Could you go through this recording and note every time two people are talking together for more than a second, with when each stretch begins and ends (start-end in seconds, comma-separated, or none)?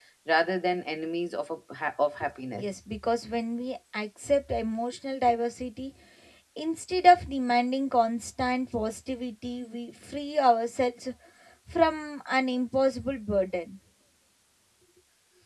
none